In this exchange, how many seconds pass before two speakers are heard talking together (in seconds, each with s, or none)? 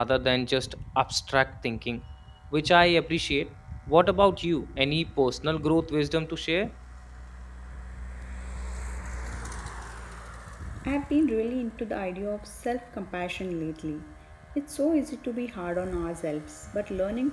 none